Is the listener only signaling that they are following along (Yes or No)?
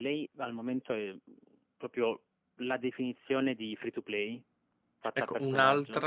No